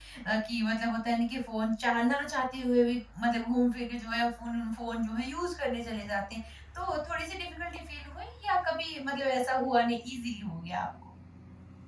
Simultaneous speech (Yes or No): No